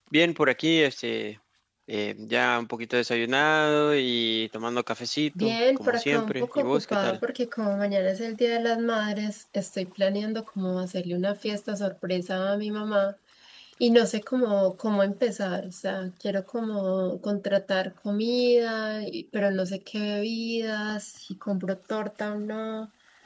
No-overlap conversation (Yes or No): No